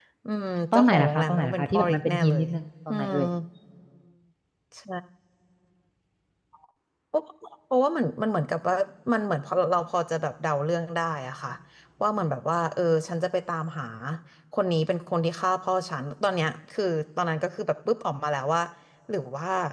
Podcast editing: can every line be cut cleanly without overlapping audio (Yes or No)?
No